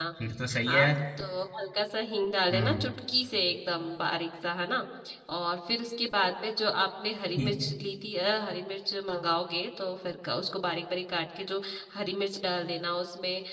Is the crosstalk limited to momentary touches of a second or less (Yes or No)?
Yes